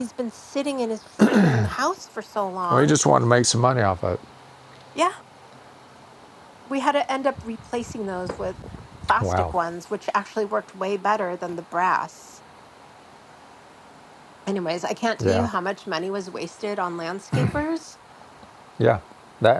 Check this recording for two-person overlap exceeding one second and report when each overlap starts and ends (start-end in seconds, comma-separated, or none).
none